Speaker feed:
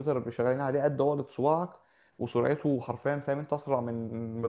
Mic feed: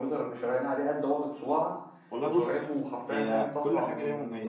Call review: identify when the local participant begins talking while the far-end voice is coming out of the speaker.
2 s

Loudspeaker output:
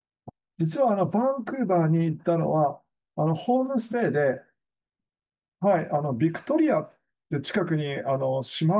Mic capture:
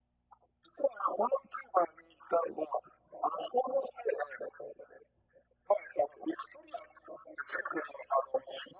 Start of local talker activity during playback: none

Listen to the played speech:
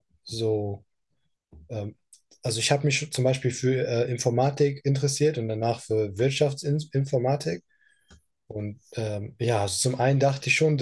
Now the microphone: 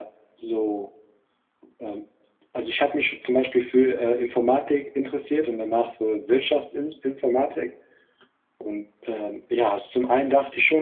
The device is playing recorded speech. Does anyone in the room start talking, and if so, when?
none

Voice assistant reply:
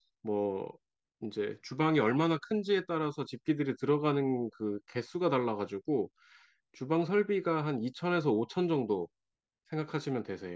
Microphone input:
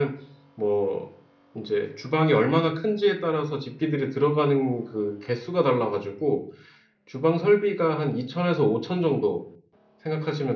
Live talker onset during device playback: none

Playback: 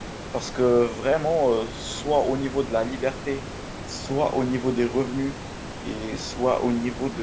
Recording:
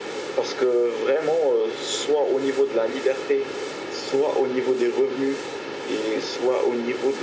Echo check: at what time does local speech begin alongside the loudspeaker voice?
none

